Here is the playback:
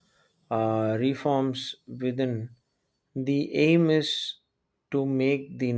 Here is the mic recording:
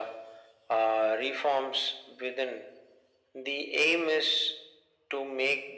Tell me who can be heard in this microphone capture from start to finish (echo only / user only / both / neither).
echo only